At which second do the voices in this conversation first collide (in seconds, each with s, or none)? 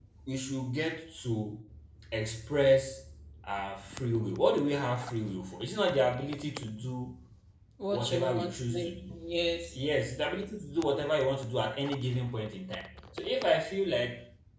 7.9 s